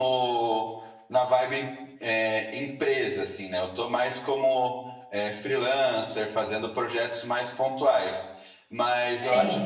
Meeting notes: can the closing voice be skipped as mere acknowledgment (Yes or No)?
Yes